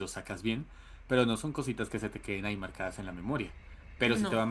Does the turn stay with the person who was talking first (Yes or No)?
Yes